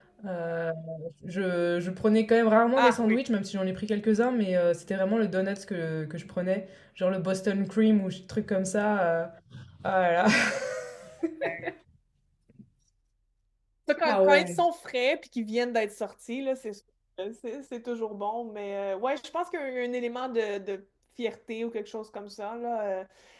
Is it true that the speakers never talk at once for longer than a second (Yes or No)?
Yes